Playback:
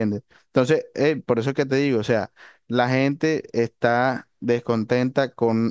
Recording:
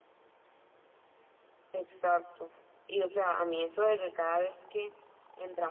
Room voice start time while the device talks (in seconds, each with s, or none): 1.7 s